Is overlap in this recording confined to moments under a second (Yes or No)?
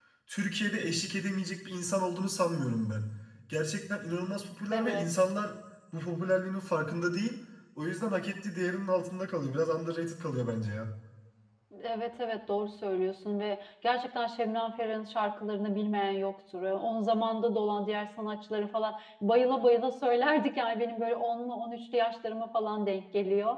Yes